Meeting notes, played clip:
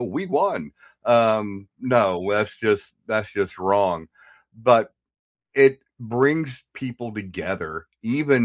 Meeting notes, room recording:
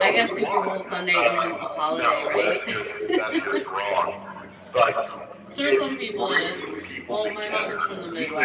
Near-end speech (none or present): present